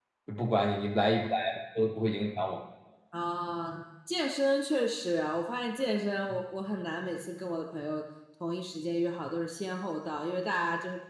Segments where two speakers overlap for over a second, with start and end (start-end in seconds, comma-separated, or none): none